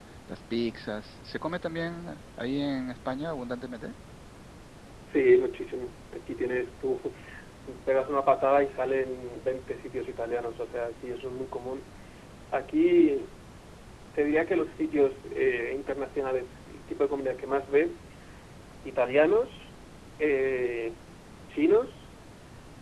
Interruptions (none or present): none